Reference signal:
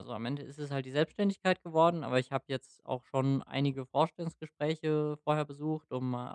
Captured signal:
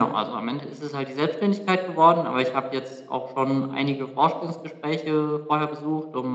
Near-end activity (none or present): none